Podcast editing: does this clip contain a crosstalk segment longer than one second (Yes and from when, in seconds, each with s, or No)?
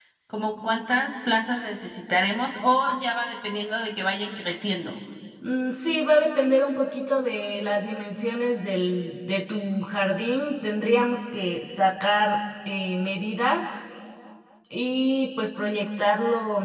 No